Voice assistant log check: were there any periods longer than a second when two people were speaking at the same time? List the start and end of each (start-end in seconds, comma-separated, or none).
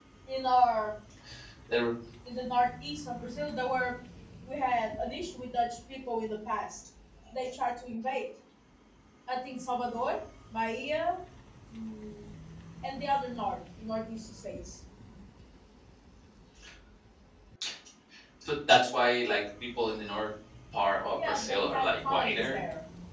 21.2-22.6